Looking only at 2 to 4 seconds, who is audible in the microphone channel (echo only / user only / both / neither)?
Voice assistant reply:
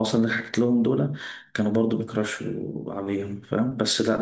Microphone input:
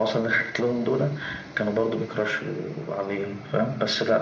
echo only